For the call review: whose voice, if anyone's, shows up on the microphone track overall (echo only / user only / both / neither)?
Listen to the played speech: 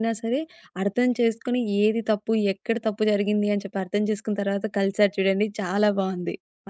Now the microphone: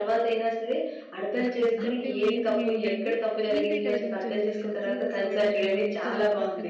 both